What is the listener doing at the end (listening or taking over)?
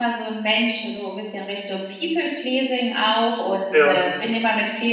listening